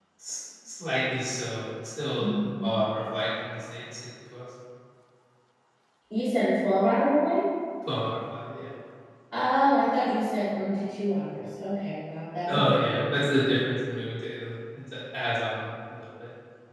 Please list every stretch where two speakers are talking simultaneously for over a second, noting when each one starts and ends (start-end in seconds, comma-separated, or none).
none